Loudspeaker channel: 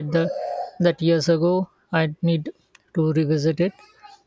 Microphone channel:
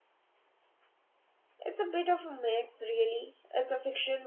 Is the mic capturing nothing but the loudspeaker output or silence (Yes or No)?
No